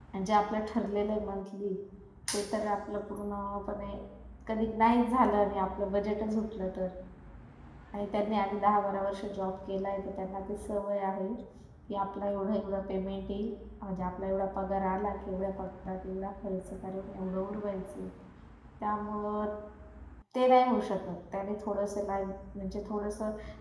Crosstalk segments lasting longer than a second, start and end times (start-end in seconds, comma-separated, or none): none